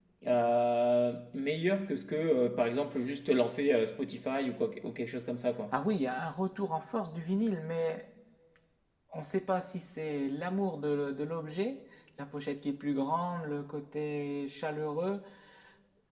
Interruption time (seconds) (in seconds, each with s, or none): none